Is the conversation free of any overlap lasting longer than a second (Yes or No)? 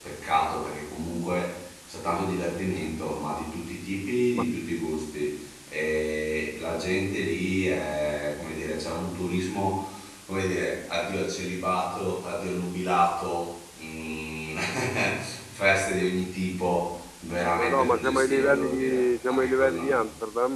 No